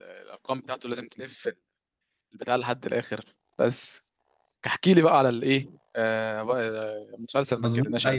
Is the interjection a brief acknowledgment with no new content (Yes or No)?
No